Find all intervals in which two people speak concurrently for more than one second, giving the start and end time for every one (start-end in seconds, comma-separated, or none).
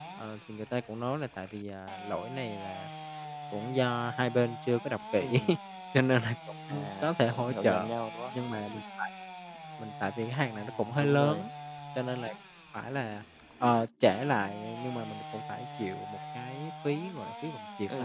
6.7-7.9